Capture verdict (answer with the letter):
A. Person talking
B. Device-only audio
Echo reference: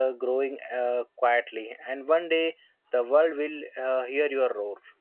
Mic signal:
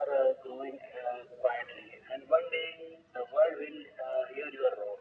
B